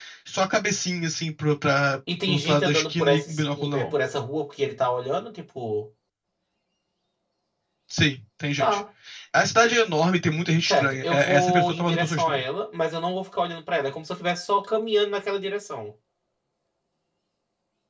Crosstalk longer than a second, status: present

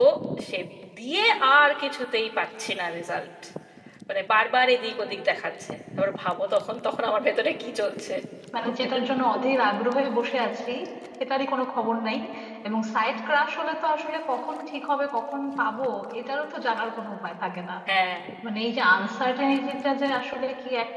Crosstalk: none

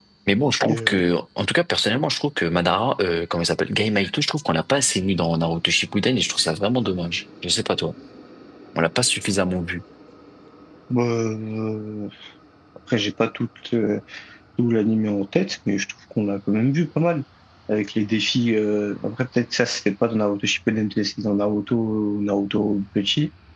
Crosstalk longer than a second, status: none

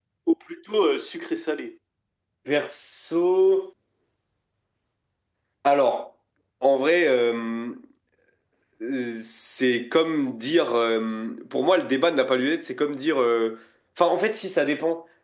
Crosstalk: none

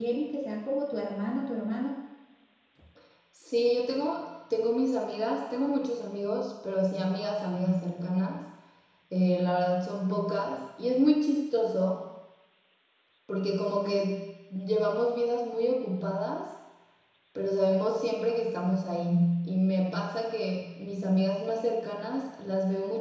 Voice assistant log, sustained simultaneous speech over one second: none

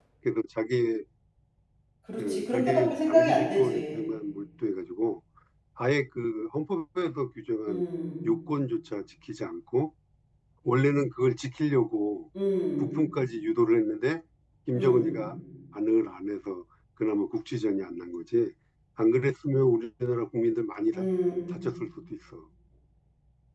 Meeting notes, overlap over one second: present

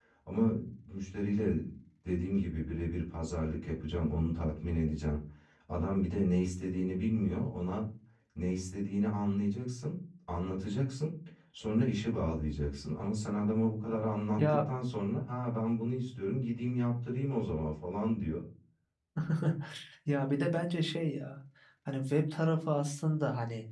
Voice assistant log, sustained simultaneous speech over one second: none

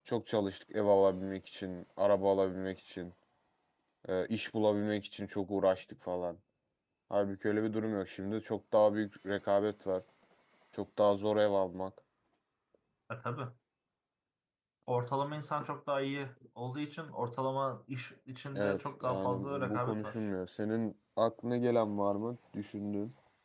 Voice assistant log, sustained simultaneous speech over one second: present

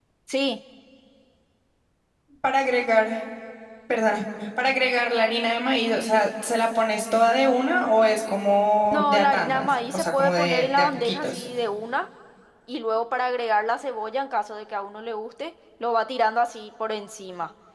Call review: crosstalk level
present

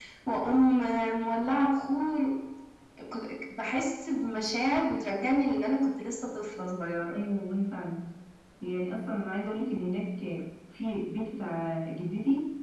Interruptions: none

